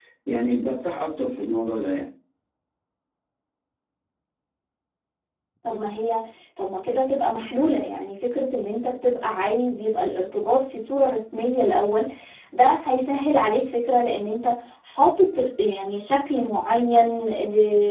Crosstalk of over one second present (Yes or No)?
No